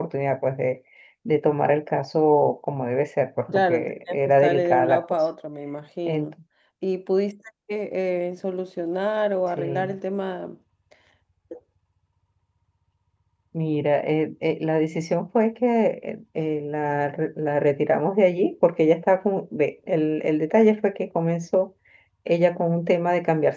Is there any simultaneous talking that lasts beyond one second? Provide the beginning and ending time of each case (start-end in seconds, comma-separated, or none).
3.6-5.2